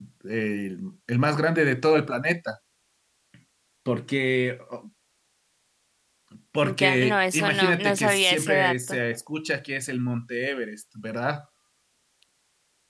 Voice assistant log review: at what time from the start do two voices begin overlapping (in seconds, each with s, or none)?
6.6 s